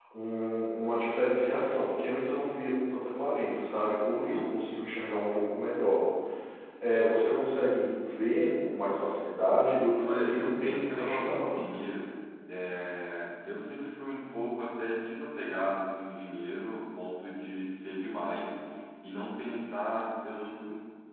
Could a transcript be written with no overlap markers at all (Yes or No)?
No